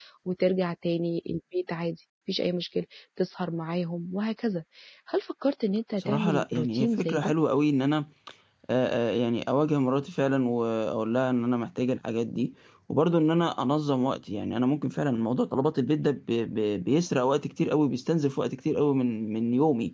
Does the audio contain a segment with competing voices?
Yes, from 6.0 s

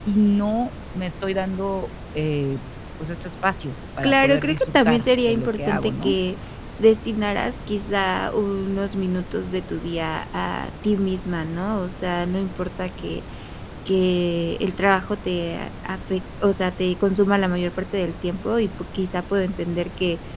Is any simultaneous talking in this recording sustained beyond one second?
Yes, from 4.0 s

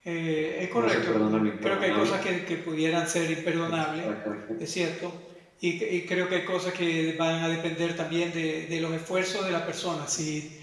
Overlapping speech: Yes, from 0.8 s

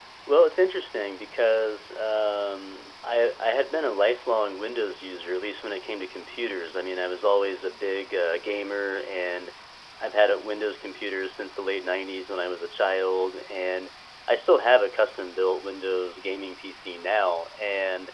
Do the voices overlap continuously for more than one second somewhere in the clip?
No

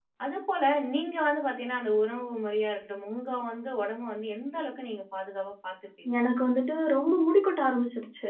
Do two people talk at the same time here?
No

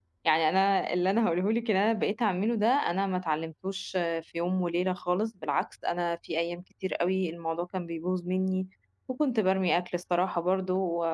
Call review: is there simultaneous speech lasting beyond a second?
No

